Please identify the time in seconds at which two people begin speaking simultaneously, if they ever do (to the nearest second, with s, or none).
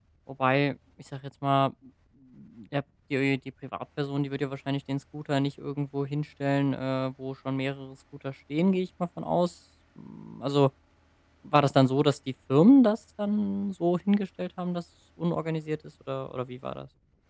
none